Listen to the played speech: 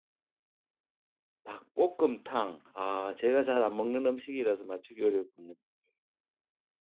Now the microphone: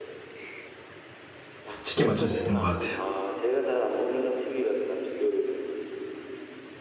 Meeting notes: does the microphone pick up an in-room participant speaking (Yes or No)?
Yes